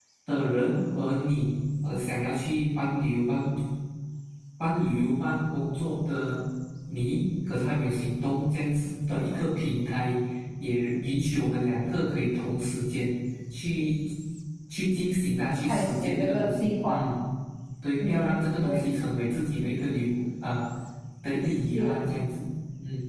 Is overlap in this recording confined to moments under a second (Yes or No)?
No